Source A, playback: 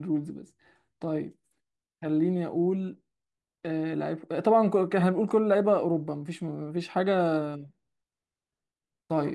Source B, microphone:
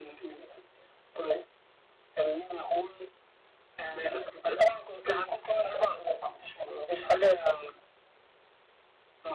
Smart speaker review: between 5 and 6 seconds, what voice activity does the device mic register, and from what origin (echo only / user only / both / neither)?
echo only